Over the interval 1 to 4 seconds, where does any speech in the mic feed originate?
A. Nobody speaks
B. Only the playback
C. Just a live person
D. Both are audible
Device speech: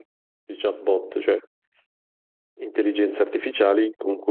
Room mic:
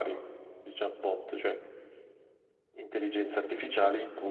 B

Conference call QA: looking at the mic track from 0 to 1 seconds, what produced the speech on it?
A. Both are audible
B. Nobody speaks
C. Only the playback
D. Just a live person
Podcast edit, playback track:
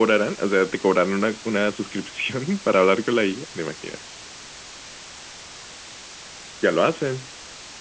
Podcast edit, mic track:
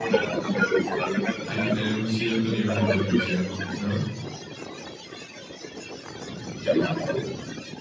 C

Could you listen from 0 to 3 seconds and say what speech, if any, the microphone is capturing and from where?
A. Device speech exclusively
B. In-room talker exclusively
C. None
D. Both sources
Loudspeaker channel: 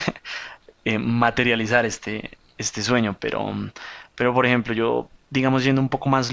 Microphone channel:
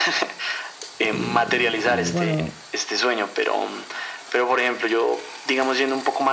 D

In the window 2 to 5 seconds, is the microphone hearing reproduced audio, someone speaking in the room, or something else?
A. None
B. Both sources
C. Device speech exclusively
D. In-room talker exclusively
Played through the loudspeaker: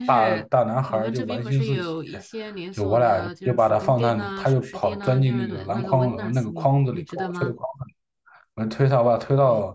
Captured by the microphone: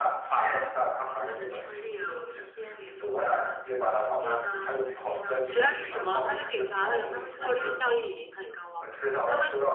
C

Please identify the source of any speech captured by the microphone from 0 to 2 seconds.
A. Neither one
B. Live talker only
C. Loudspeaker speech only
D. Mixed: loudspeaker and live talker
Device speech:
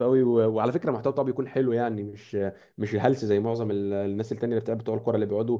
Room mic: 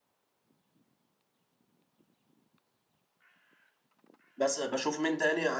A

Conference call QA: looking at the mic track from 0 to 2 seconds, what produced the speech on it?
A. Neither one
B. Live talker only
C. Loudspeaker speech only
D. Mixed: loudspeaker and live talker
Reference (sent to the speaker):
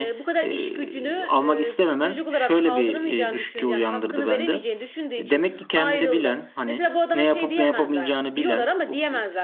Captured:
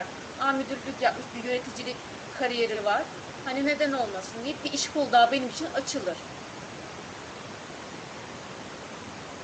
B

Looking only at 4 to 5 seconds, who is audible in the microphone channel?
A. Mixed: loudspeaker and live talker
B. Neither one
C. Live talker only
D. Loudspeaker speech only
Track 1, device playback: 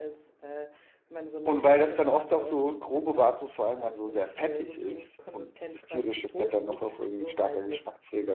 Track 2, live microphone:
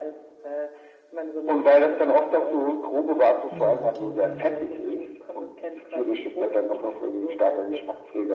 A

